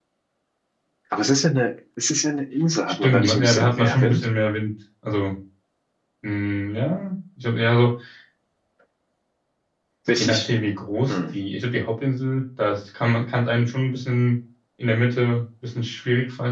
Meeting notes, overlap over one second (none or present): present